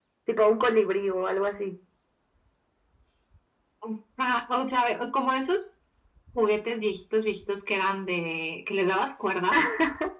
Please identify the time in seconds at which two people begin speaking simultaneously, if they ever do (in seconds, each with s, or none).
none